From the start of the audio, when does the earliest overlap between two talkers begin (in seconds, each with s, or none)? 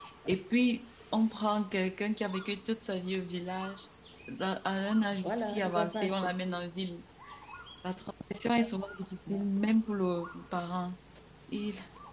5.1 s